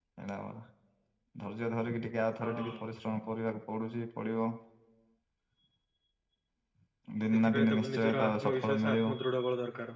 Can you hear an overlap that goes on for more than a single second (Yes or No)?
Yes